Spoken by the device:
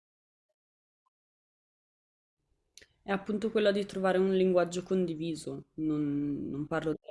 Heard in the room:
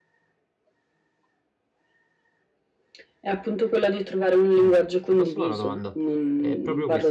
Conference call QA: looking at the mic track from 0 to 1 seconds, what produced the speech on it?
neither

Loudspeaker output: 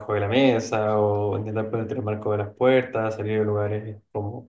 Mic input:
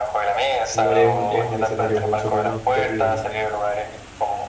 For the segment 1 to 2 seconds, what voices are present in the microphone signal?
both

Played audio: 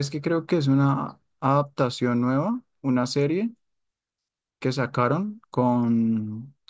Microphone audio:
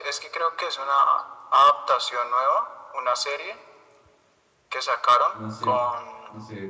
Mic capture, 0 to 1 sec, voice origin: echo only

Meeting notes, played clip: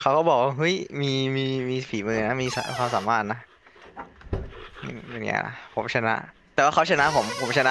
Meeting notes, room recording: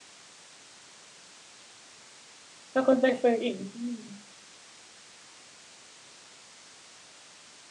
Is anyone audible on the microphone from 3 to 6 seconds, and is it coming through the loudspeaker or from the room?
user only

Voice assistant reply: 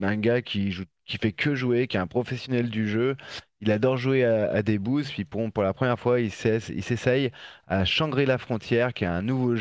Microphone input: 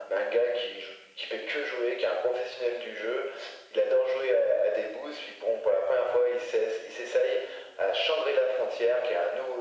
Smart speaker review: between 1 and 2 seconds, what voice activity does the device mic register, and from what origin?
echo only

